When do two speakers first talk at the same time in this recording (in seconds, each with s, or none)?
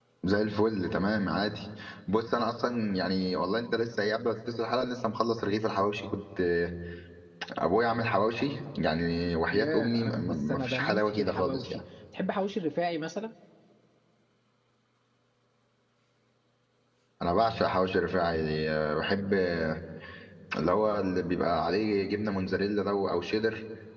9.5 s